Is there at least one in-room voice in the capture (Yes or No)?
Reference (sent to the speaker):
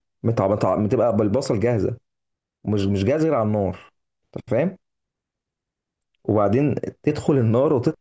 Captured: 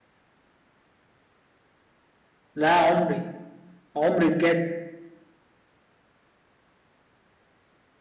Yes